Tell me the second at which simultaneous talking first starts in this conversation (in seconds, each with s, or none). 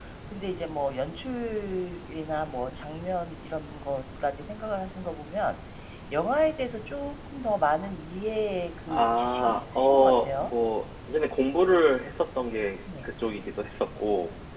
8.9 s